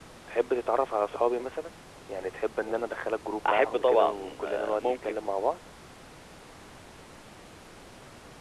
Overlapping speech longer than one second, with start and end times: 3.5-5.1

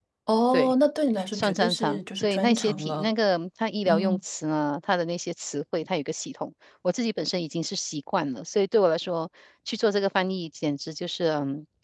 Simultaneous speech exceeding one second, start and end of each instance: 1.3-3.1

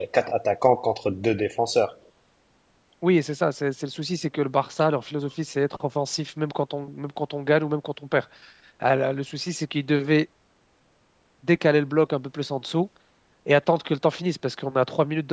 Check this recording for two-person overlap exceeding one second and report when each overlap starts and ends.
none

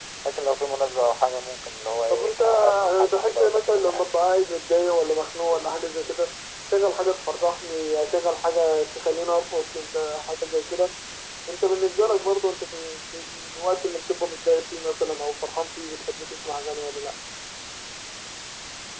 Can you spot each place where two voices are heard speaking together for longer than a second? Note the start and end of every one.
2.1-4.1

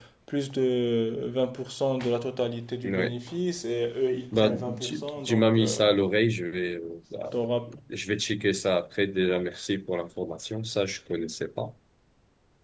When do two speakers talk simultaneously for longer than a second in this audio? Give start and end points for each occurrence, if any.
4.3-5.8

